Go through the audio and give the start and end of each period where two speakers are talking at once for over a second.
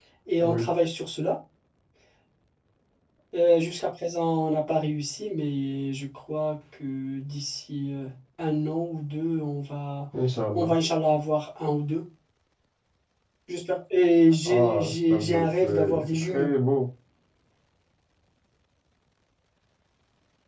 14.4-16.5

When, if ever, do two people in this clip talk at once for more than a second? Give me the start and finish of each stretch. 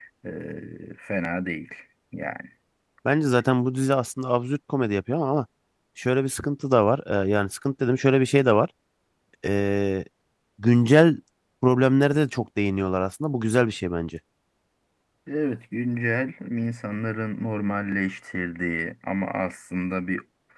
none

